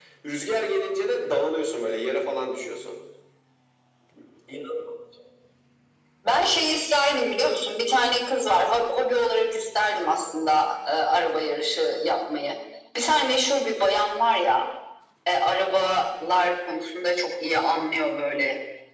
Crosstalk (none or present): none